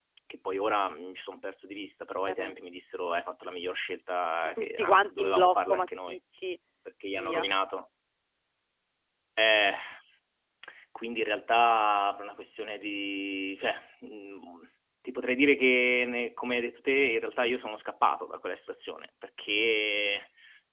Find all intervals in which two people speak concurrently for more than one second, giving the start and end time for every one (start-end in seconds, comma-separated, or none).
4.6-6.2